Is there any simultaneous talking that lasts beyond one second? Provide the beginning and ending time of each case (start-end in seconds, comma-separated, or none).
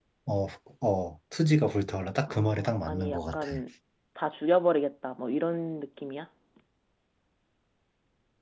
2.3-3.5